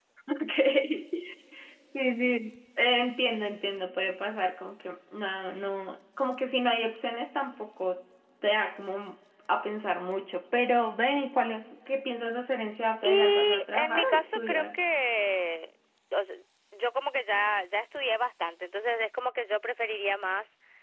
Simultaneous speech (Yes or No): Yes